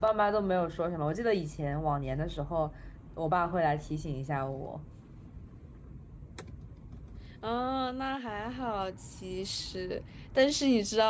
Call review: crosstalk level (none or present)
none